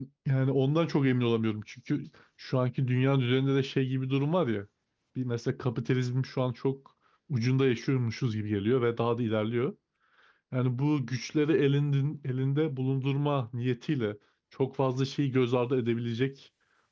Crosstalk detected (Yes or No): No